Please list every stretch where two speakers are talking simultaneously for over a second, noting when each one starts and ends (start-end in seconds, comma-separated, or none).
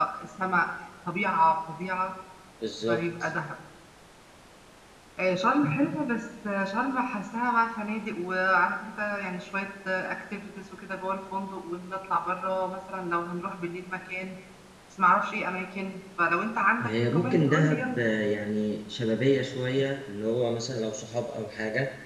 16.8-18.0